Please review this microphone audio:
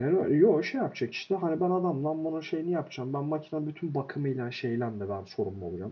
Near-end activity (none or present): present